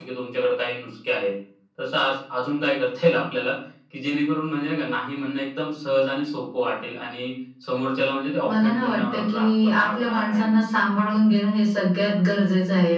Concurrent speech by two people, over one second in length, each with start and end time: 8.5-10.6

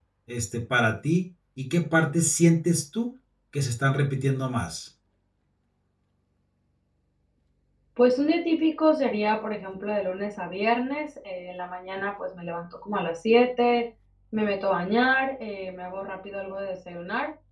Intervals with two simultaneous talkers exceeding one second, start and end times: none

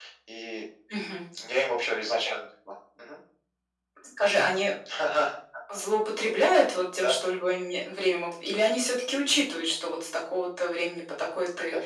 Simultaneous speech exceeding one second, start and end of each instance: none

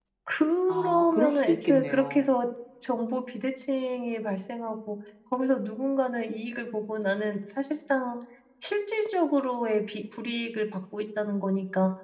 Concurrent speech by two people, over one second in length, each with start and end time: 0.7-2.3

